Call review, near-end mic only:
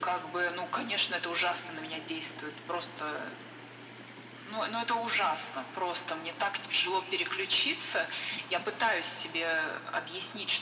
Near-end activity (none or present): none